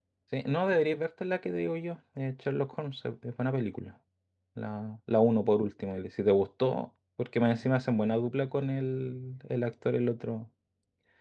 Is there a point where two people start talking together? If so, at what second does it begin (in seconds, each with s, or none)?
none